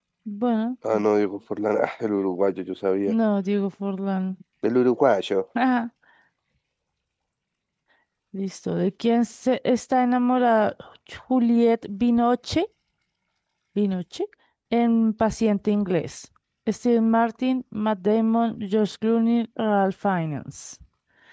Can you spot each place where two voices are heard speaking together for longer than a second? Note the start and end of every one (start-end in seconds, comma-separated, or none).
none